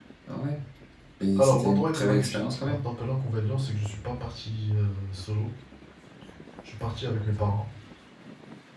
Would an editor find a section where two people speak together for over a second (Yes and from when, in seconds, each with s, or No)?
Yes, from 1.4 s